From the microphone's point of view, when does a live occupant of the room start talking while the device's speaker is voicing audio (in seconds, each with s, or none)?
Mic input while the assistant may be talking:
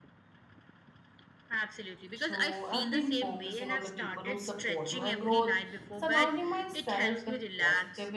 2.1 s